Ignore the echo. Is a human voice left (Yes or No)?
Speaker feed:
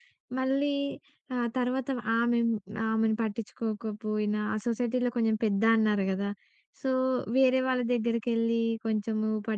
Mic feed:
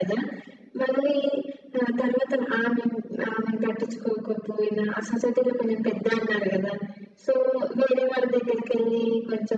No